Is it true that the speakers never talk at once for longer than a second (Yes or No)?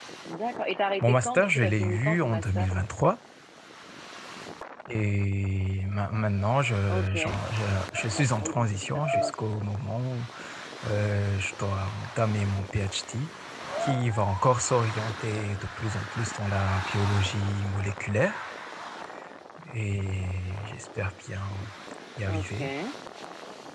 No